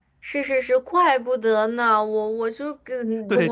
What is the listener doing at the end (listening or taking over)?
taking over